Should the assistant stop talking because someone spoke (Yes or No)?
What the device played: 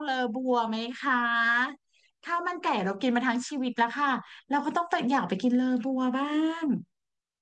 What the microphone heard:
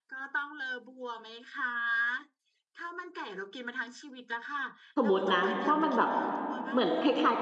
Yes